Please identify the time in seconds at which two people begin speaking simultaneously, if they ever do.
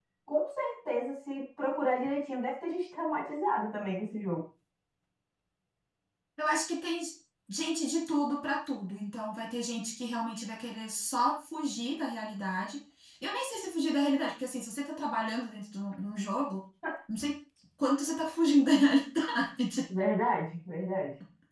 none

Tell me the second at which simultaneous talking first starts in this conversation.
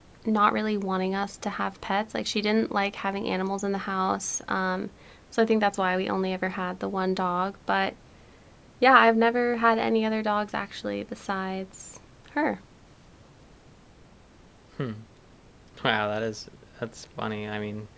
none

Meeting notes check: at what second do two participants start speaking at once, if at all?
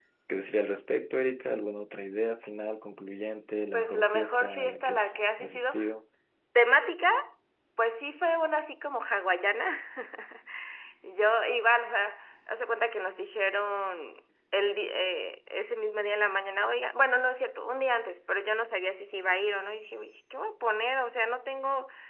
3.7 s

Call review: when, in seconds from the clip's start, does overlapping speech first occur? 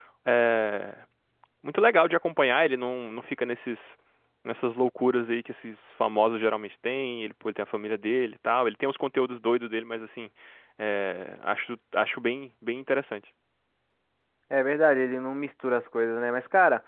none

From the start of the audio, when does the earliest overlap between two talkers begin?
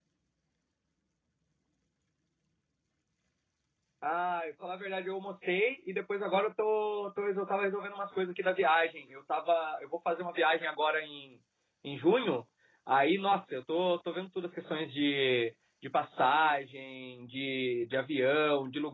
none

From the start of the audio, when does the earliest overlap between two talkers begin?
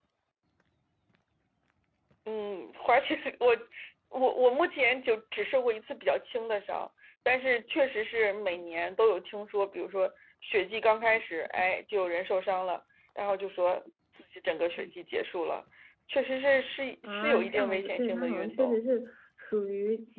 17.0 s

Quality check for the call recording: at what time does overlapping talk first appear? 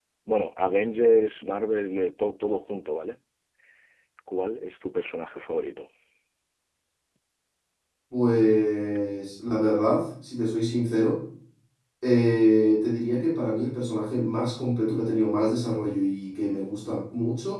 none

